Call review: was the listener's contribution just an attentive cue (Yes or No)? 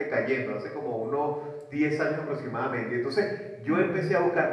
Yes